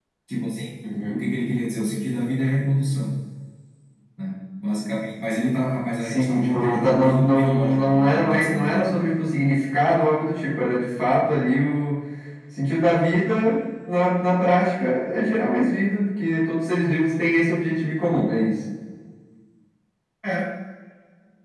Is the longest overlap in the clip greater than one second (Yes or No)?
Yes